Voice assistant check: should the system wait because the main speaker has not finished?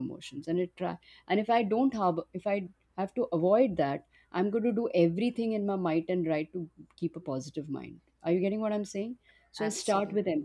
Yes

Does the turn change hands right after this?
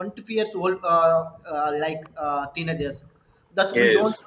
No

